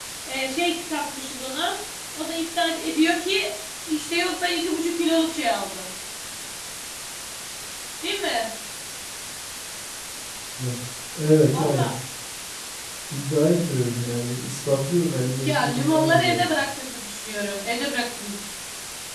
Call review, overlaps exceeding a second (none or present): present